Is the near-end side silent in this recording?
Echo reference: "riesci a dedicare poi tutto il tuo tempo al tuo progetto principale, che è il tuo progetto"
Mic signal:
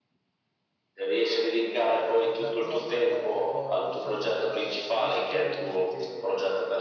No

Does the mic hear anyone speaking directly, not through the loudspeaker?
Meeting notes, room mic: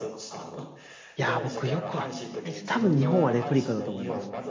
Yes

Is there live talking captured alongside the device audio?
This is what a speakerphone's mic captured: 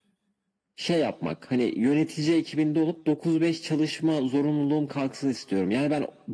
No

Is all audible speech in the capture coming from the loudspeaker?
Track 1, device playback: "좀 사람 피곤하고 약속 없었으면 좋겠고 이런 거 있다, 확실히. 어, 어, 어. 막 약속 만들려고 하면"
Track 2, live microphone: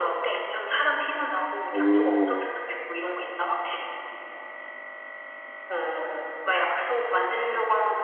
No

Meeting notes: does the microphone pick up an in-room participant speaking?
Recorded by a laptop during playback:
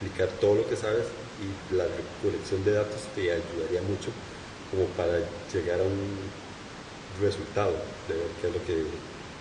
Yes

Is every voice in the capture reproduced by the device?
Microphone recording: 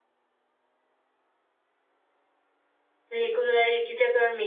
No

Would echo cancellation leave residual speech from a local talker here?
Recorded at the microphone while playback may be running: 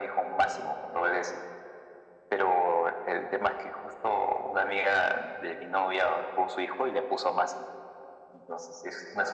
No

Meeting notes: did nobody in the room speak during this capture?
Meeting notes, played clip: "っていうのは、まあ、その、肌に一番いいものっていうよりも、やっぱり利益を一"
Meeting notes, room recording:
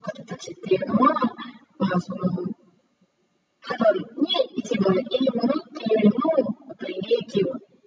Yes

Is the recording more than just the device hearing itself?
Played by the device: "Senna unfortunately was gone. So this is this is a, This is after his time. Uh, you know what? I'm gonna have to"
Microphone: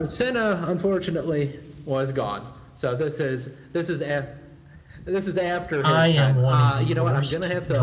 Yes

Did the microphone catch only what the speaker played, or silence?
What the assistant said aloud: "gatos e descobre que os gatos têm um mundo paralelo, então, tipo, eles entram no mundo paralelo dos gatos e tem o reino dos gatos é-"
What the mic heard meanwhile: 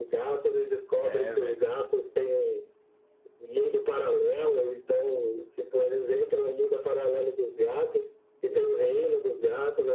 No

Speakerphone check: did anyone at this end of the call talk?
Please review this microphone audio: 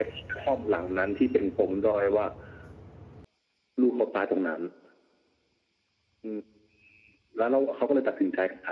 No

